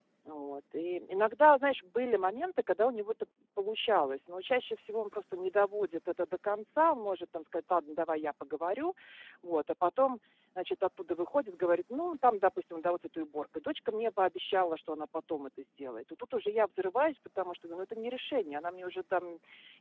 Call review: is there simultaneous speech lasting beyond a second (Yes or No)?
No